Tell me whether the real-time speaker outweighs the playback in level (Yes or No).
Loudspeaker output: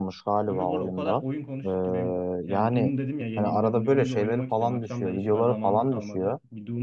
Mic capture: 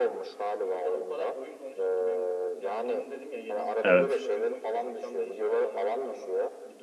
Yes